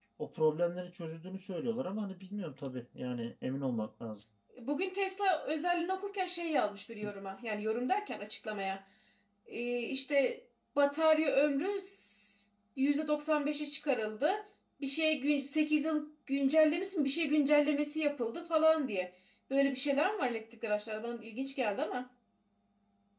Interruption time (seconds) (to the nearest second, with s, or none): none